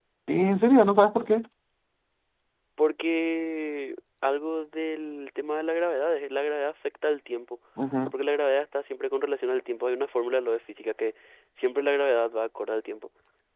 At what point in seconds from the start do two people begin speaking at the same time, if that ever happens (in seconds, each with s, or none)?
none